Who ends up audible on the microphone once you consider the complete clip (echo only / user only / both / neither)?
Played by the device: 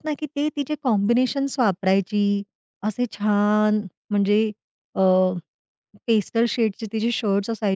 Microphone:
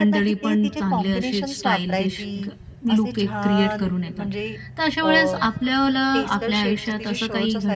both